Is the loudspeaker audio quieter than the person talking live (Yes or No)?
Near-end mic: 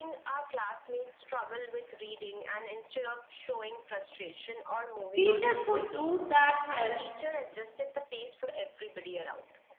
Yes